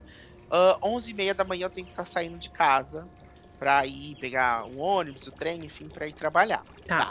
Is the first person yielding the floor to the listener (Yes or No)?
No